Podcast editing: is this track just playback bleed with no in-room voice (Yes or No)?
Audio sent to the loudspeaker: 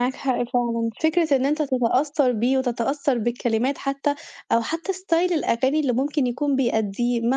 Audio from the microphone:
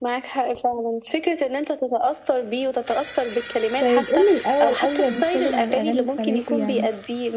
No